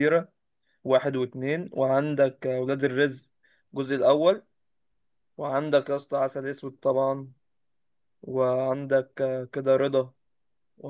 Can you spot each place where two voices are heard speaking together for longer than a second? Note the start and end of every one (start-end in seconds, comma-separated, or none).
none